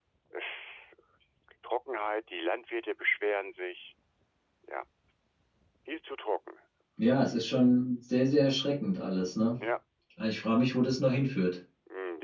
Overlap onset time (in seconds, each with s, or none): none